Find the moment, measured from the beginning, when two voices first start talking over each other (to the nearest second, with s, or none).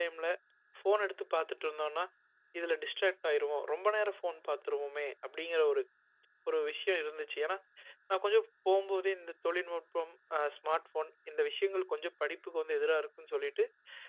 none